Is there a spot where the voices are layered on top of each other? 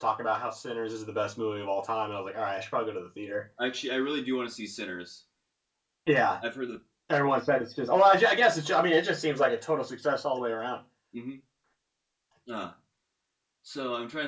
No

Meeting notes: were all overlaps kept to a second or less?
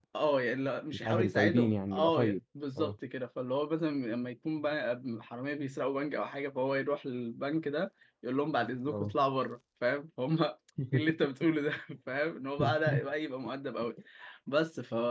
No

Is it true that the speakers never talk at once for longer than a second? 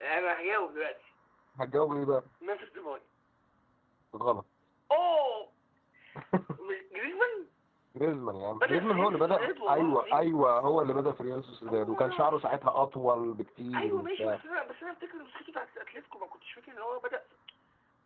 No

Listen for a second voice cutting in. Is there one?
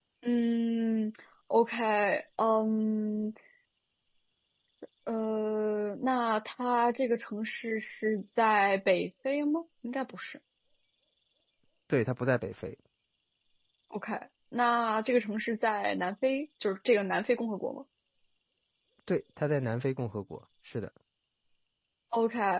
No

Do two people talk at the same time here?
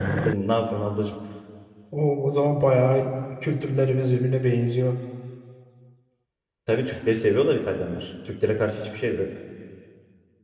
No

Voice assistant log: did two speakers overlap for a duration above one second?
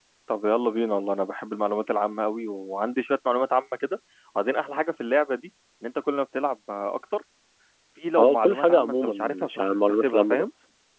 Yes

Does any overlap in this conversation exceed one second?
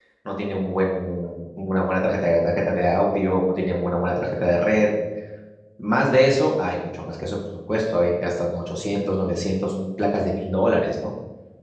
No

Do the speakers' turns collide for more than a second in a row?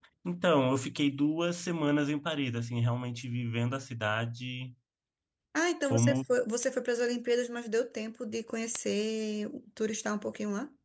No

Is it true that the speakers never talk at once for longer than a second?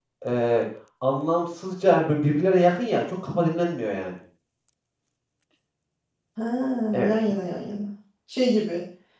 Yes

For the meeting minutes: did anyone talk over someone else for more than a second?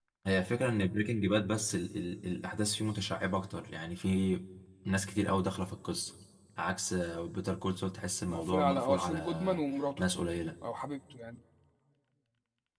Yes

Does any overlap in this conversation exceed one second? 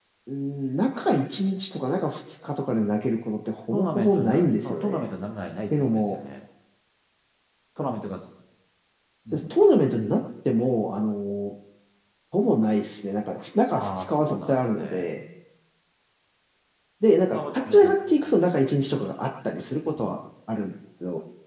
Yes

